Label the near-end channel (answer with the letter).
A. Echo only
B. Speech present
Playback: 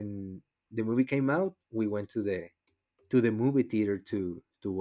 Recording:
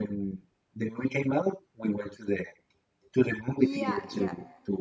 B